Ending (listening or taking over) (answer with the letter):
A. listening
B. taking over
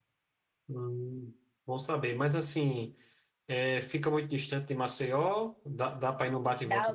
B